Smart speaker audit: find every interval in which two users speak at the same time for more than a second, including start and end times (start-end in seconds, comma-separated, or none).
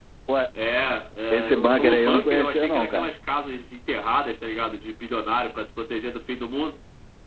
1.3-3.1